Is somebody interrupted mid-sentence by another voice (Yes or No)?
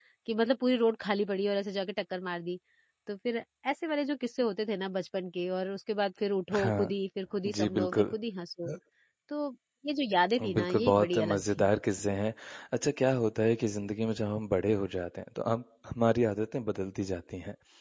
Yes